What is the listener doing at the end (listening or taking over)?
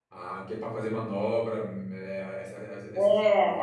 taking over